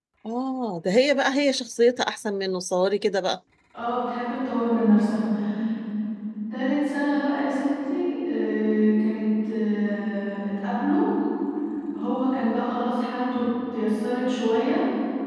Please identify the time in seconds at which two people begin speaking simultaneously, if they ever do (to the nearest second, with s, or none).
none